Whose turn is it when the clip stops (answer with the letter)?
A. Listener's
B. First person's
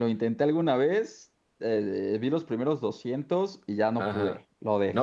A